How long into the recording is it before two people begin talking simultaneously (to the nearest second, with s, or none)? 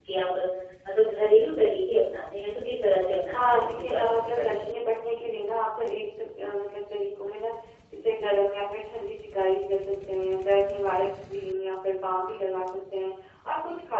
3 s